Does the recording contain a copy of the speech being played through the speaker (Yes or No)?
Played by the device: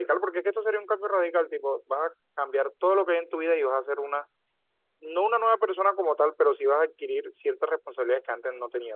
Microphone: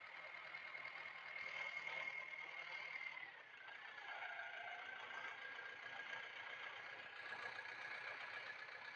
No